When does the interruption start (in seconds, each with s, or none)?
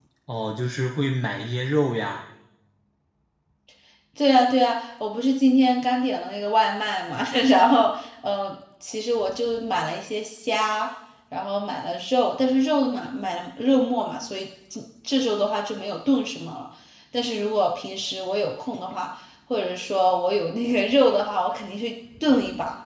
none